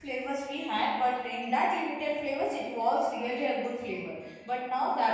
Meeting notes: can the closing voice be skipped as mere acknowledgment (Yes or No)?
Yes